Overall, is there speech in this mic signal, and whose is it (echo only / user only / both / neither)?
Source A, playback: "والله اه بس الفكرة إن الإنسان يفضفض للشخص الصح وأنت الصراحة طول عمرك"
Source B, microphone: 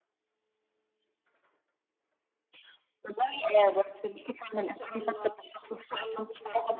both